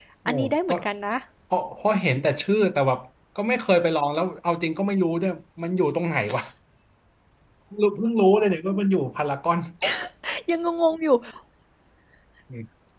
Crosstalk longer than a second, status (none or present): none